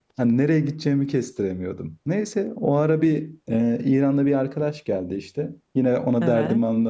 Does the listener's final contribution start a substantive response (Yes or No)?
No